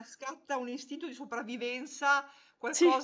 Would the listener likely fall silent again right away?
Yes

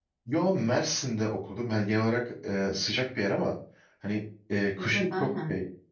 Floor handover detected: No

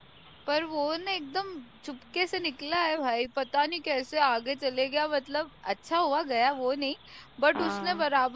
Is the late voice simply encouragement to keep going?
Yes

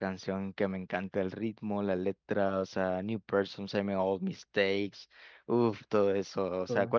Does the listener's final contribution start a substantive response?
No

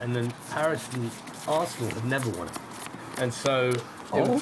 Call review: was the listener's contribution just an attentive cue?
No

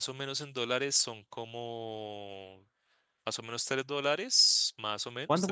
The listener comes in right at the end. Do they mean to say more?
No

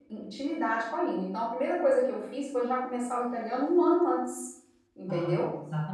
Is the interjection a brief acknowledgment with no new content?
No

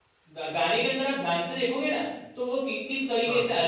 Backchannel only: Yes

